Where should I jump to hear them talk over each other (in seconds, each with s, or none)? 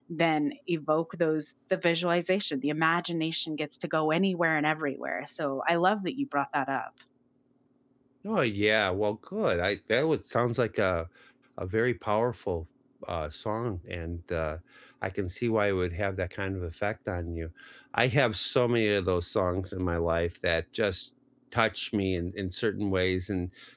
none